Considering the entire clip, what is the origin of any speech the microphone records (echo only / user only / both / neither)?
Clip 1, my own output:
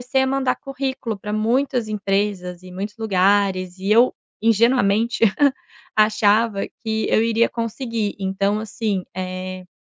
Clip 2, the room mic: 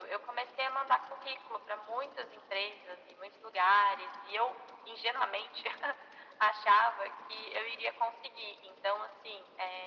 echo only